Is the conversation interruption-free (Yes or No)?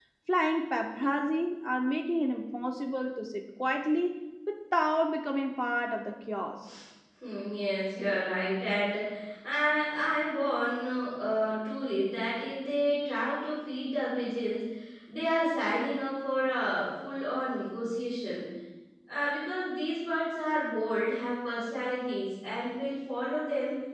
Yes